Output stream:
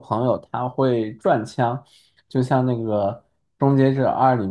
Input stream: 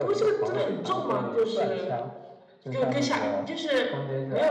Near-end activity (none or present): present